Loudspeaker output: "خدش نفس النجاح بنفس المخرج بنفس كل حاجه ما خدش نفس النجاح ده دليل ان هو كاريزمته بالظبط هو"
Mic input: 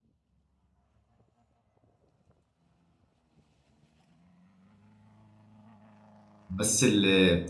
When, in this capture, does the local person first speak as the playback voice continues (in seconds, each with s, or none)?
6.5 s